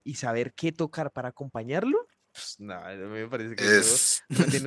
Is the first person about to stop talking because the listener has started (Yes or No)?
No